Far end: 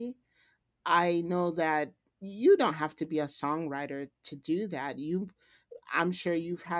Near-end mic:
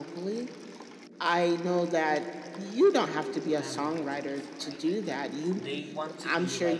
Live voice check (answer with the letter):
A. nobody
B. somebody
B